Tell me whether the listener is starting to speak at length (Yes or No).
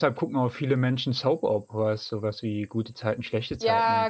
Yes